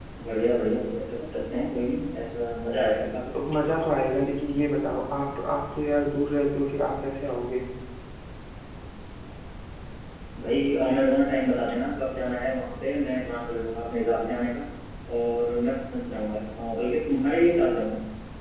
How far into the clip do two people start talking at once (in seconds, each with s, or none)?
none